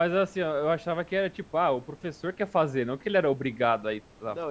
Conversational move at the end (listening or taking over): taking over